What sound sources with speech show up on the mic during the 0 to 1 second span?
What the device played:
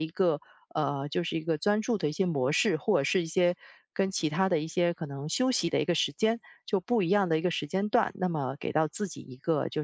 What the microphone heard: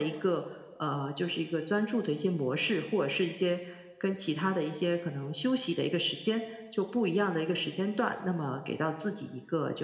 echo only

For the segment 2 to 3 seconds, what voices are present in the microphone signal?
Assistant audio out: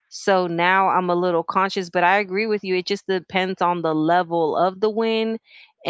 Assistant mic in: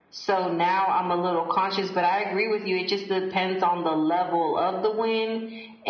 echo only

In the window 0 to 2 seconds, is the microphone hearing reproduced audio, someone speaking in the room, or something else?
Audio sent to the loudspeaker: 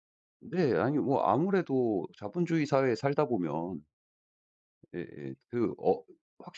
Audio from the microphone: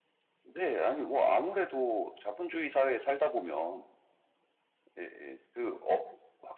echo only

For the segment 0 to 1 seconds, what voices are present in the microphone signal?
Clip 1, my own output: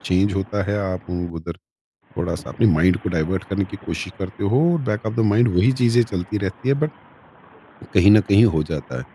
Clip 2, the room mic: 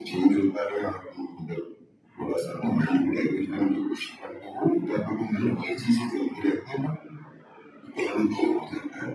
echo only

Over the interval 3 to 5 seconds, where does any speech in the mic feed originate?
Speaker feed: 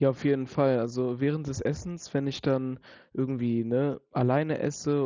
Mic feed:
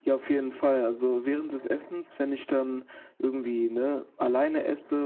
echo only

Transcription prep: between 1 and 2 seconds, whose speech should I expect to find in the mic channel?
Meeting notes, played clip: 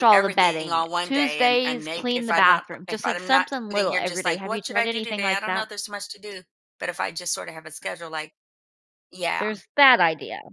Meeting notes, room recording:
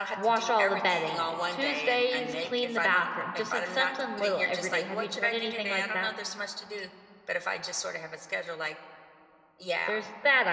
echo only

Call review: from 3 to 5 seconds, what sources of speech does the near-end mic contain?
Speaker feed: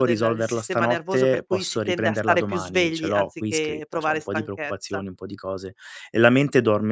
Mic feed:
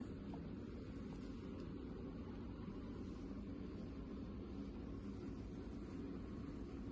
neither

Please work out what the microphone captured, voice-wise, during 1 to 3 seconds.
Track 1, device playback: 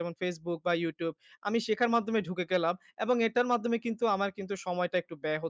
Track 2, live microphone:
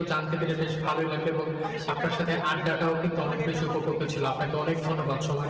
both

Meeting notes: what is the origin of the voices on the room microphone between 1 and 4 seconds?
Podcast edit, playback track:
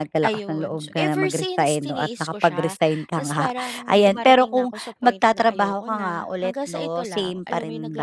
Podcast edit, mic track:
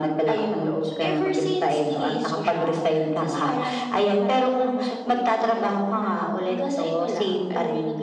echo only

